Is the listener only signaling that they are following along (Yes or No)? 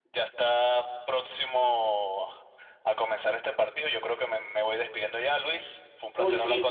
No